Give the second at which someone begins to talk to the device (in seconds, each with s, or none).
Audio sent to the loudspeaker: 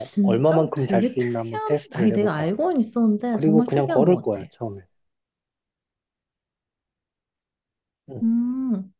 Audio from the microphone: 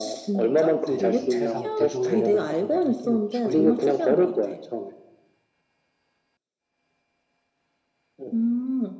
0.8 s